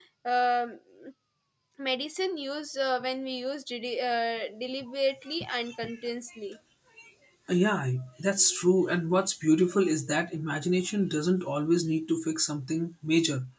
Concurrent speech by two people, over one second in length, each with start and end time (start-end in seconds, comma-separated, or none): none